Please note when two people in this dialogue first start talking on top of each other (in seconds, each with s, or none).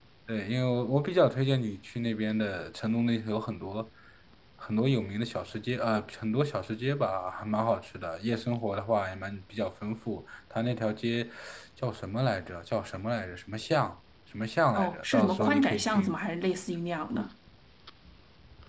14.8 s